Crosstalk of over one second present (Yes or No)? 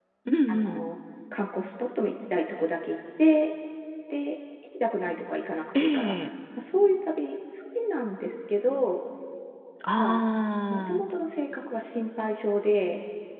No